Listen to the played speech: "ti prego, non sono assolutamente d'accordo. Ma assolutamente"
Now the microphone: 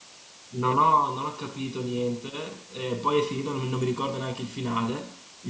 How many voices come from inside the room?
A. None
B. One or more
B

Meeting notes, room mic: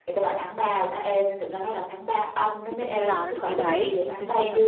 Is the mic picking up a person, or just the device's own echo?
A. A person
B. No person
A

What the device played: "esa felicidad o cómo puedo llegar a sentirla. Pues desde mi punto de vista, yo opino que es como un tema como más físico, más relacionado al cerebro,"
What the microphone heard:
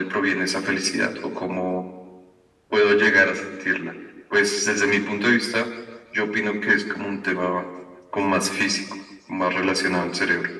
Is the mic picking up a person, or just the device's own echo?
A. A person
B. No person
B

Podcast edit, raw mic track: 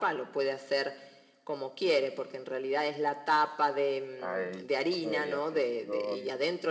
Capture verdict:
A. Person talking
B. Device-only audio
A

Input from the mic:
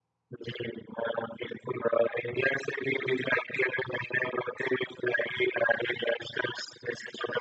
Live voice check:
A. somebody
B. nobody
B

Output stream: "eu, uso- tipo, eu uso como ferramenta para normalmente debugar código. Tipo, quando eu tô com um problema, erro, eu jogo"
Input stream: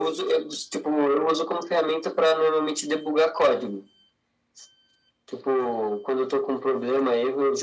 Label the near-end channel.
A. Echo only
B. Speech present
A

